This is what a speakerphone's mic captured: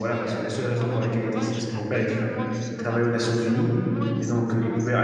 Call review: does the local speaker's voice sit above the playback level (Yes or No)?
Yes